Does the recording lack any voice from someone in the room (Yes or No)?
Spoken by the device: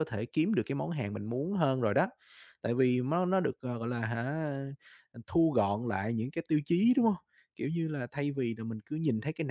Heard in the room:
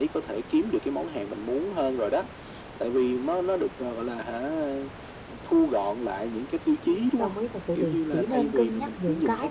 No